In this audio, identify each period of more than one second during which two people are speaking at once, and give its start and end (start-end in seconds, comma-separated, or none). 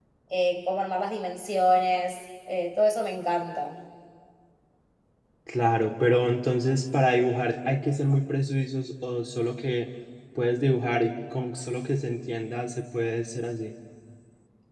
none